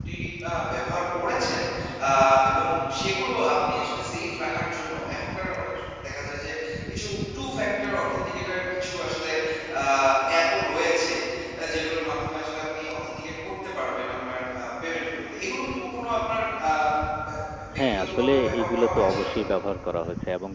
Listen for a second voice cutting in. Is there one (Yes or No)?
Yes